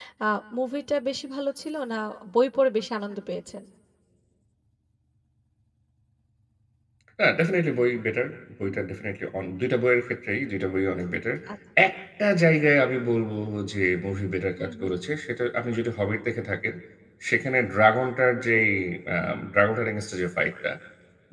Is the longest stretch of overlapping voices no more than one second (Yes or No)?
Yes